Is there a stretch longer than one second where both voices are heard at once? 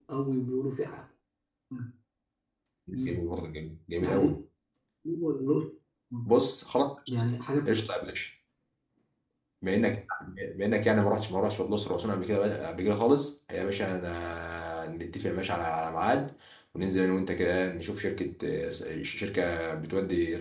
No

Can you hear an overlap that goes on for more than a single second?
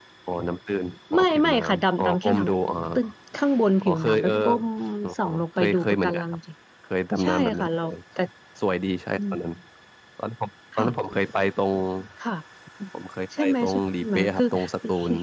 Yes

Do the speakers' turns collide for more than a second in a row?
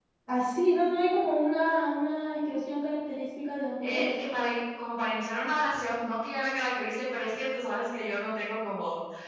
No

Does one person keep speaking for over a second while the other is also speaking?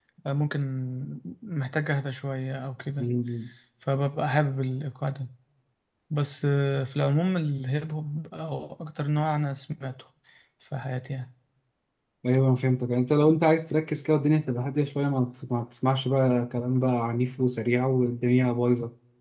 No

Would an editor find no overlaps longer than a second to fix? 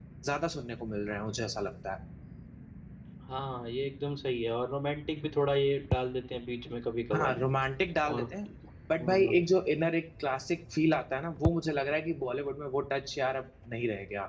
Yes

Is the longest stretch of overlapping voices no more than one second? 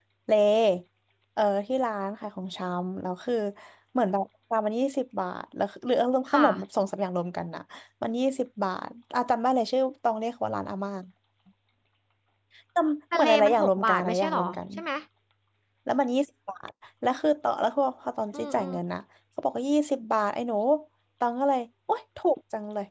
No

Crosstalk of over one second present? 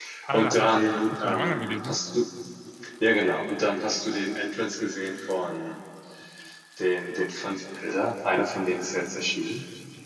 Yes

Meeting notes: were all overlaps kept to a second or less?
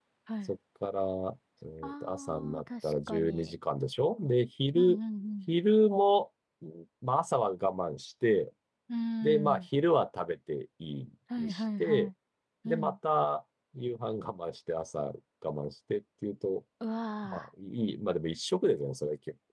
No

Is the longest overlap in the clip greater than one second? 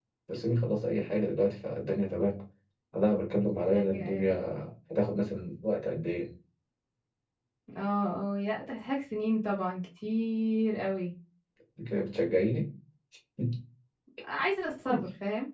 No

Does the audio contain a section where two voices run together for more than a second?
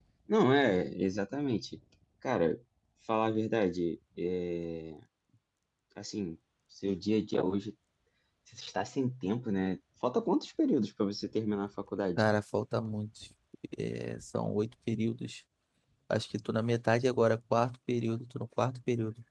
No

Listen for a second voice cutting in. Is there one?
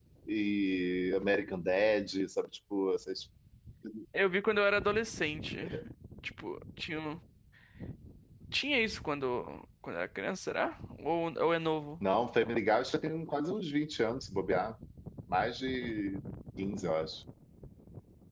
No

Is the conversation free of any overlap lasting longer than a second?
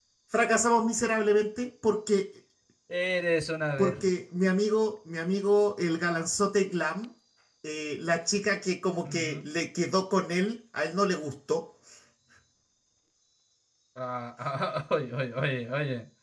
Yes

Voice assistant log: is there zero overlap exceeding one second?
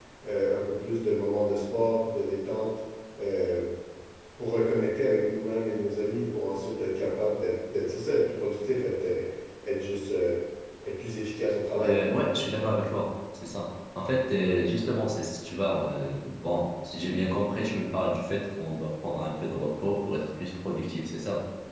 Yes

